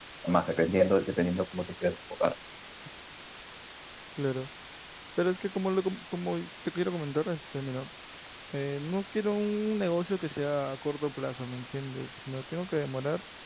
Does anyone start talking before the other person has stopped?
No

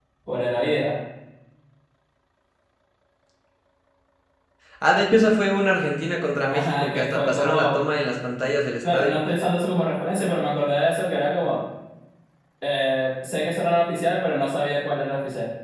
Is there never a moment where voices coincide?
No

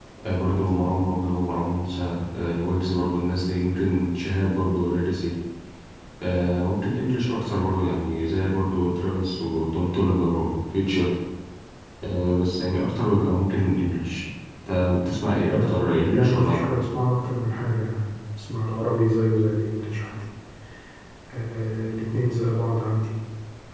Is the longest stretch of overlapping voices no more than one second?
No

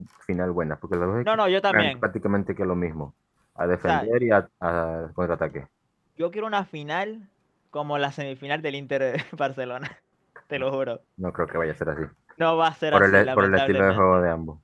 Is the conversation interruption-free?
No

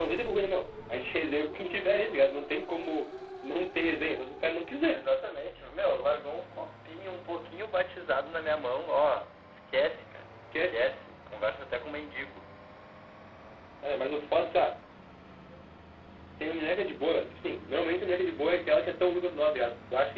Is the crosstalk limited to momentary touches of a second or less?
Yes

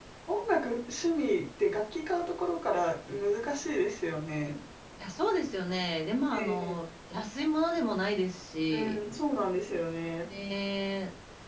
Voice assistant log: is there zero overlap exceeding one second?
Yes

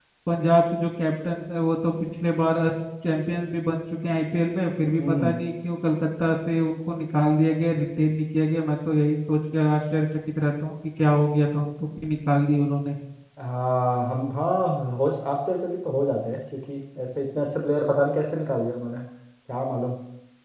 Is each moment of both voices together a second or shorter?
Yes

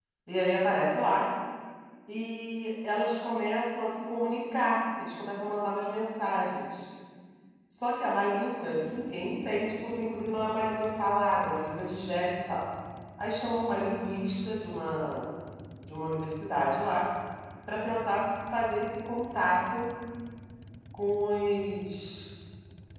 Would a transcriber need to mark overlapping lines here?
No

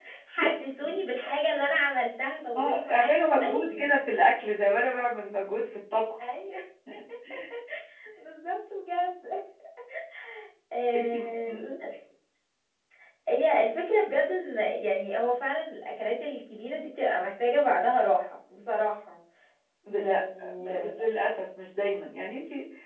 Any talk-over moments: Yes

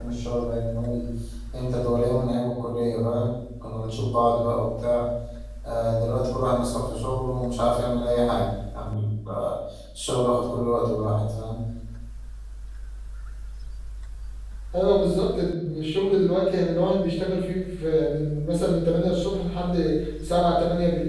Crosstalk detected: No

